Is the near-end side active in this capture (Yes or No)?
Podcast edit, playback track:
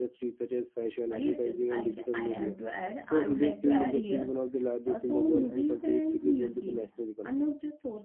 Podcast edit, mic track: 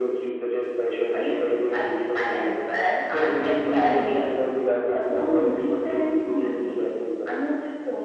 No